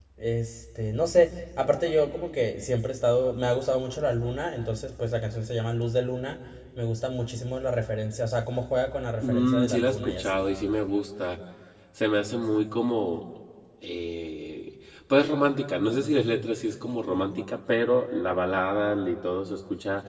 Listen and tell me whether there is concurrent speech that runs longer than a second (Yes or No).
Yes